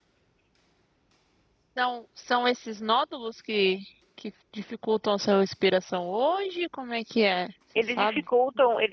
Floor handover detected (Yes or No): Yes